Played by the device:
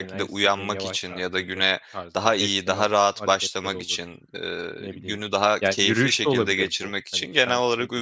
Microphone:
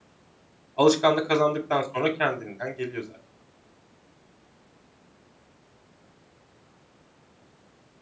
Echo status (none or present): none